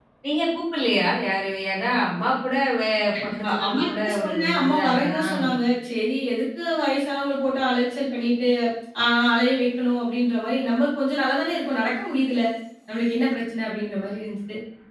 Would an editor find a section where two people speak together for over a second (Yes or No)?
Yes